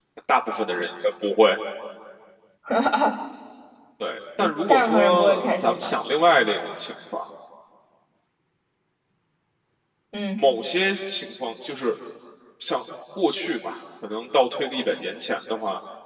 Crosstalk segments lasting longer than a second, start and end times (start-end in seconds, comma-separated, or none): 4.4-5.9